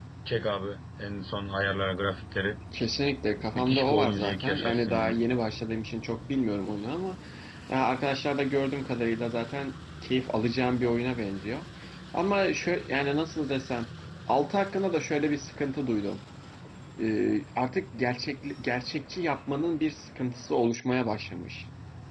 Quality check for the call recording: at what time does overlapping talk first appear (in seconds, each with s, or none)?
3.6 s